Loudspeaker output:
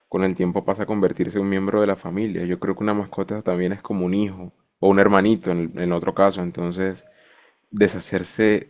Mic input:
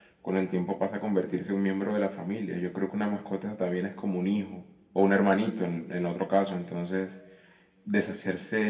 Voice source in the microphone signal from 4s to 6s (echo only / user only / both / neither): echo only